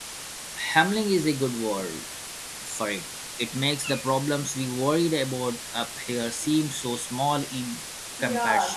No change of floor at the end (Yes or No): No